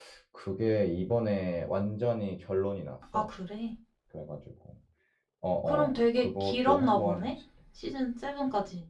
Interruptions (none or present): present